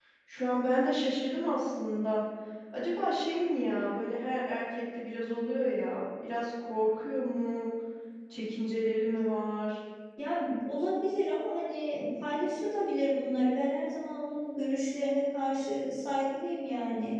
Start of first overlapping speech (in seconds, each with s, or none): none